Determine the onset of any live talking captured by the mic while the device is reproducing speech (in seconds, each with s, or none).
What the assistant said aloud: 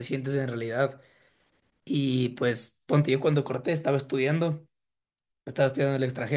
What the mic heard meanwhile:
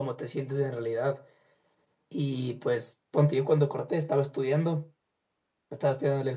none